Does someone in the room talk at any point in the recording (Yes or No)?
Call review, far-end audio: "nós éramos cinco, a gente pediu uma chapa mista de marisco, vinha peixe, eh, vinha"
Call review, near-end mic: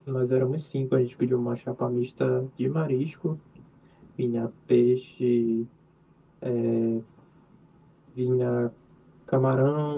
No